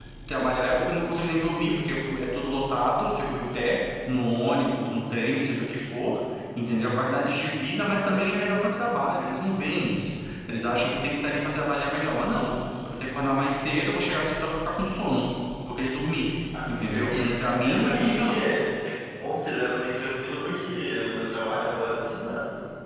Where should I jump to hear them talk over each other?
17 s

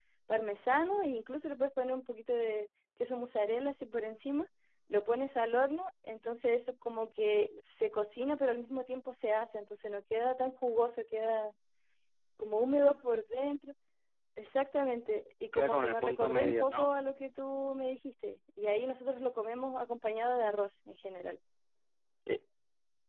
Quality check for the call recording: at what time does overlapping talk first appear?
16 s

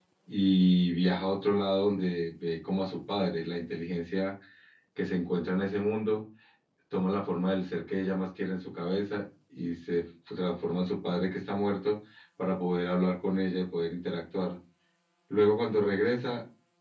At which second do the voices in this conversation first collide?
none

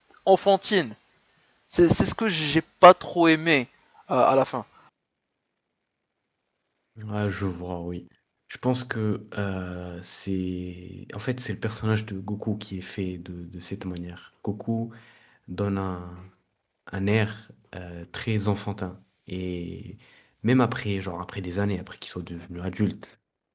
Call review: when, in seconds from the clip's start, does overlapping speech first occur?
none

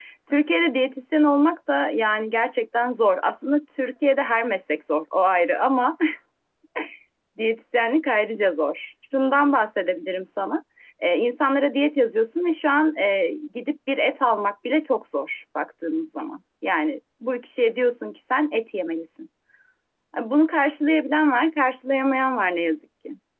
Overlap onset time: none

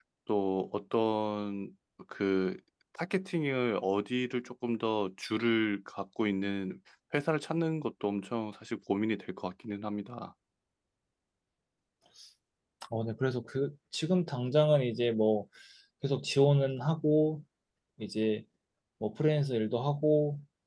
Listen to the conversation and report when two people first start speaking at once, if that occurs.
none

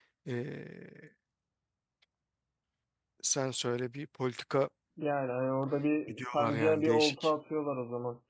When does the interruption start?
6 s

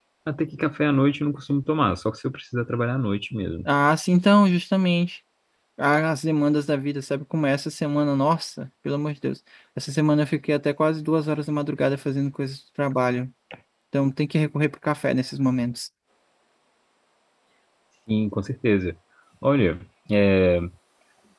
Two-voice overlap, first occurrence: none

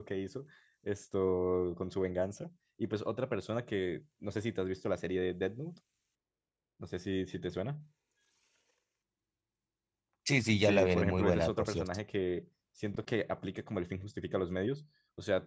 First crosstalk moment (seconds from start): 11 s

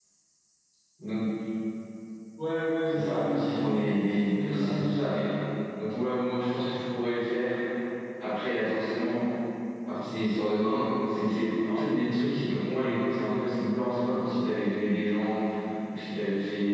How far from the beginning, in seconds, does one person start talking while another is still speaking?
3 s

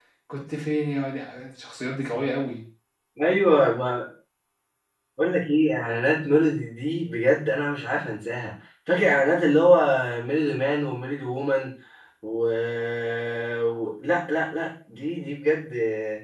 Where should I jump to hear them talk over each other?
none

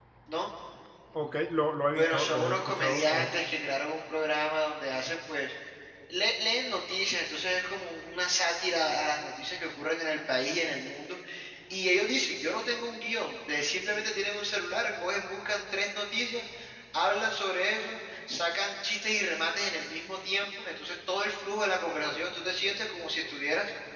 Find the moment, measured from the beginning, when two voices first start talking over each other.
2 s

